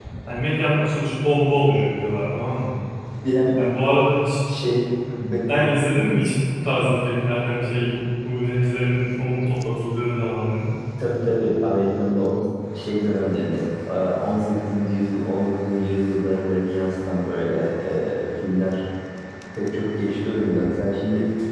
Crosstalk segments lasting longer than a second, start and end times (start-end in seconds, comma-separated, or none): none